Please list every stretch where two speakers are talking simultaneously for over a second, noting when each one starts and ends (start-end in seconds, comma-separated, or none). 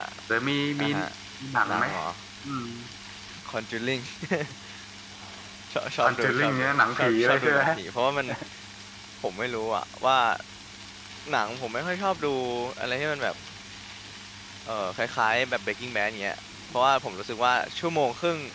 6.0-7.6